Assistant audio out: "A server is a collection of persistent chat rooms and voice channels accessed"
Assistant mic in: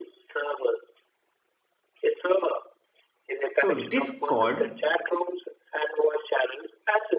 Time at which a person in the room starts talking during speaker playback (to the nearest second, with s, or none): 4 s